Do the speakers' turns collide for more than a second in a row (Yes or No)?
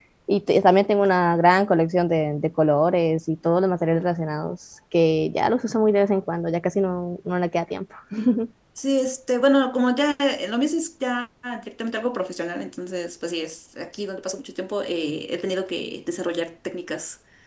No